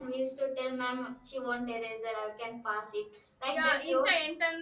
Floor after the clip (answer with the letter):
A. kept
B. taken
B